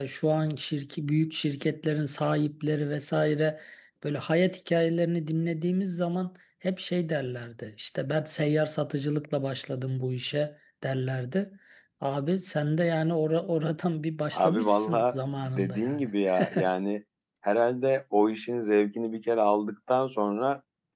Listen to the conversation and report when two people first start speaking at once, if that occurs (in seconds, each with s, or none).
14.3 s